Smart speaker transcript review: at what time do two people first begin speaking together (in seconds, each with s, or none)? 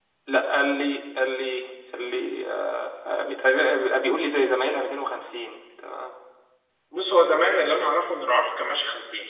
none